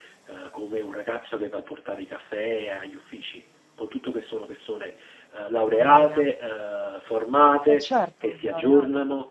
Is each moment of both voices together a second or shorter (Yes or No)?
No